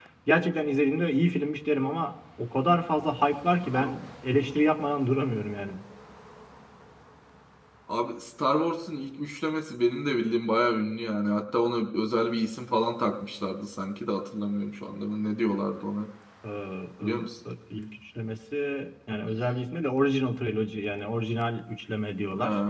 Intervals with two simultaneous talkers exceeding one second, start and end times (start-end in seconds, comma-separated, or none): none